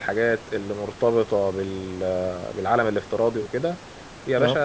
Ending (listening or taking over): listening